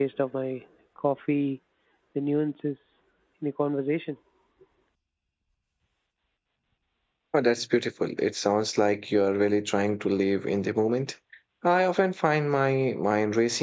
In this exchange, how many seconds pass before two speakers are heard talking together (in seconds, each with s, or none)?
none